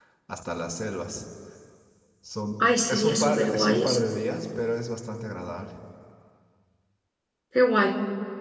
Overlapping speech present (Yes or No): Yes